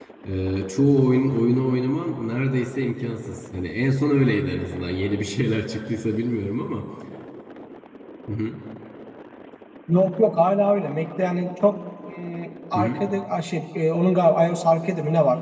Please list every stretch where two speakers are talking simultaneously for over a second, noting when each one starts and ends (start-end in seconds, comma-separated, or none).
none